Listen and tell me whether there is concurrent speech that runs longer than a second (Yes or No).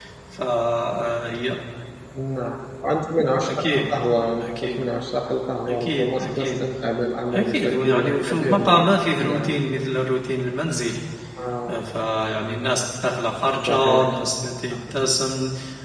Yes